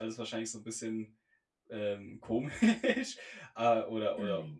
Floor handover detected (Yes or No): No